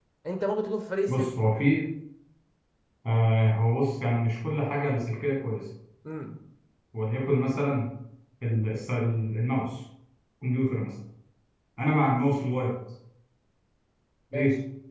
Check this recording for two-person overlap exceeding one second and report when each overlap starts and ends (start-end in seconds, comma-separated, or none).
none